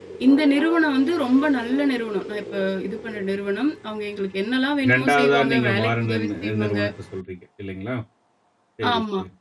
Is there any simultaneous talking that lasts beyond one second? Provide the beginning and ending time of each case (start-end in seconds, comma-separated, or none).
4.9-6.8